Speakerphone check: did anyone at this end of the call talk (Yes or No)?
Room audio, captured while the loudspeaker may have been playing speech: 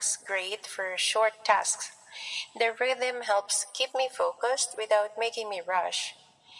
No